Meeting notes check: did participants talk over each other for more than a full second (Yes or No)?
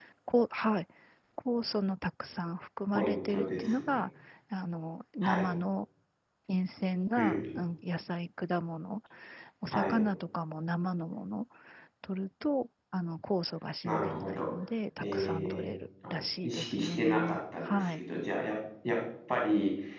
Yes